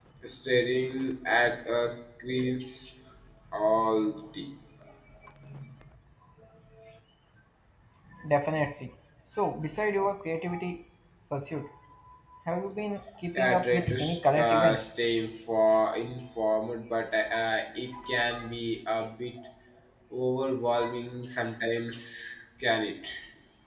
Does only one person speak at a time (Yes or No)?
No